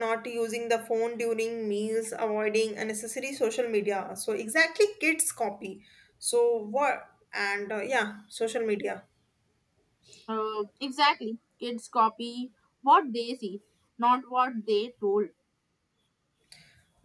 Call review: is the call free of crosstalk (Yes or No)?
Yes